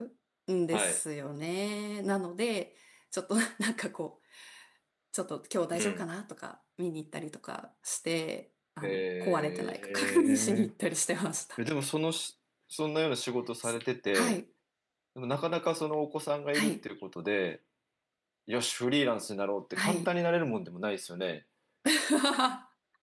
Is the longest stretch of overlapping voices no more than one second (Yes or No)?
No